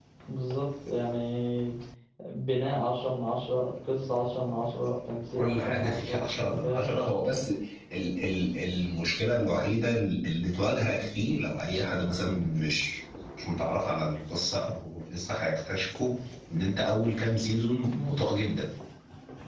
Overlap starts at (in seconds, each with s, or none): 5.4 s